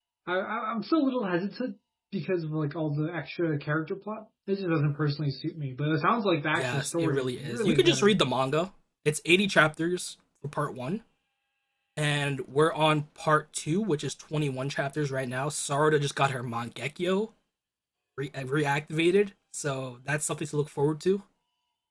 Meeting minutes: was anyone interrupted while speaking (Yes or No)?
Yes